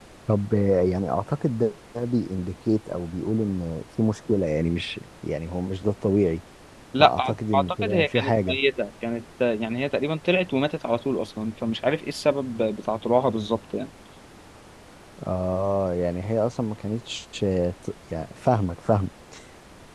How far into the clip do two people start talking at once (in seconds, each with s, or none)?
7.0 s